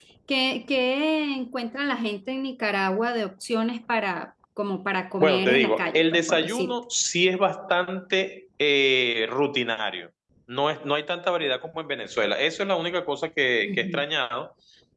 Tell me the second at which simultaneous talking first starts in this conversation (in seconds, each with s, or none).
5.2 s